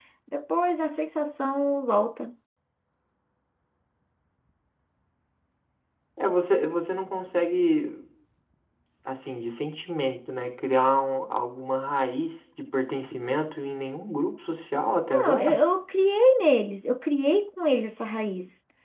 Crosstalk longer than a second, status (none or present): none